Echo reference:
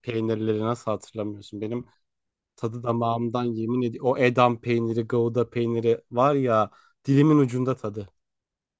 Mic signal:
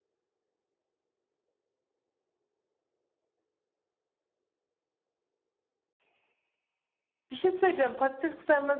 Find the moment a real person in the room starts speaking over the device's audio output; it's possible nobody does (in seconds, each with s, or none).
7.3 s